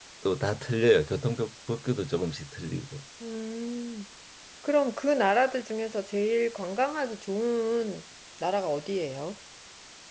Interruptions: none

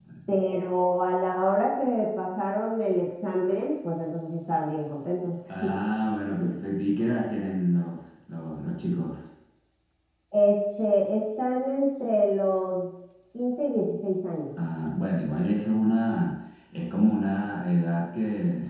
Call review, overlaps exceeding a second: none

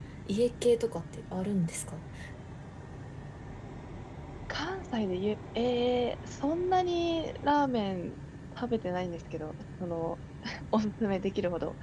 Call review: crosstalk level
none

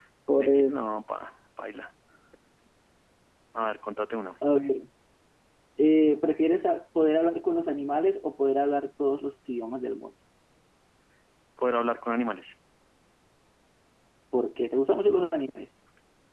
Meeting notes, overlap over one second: none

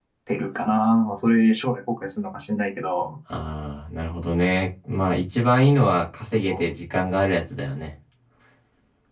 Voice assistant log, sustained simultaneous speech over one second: none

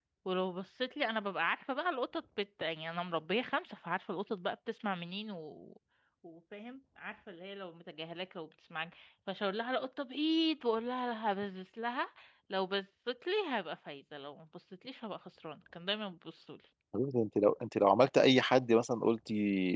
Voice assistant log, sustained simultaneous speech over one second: none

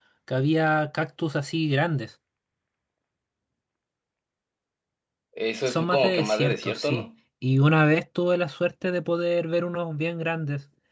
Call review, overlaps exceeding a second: present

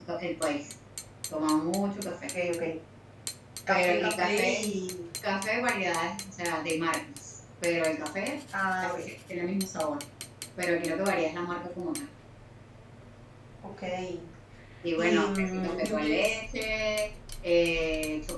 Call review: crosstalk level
present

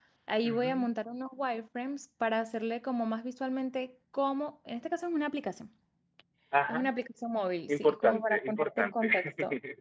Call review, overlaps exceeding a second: present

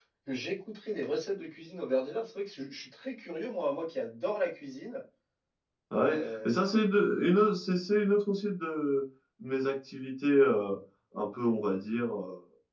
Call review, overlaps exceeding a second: none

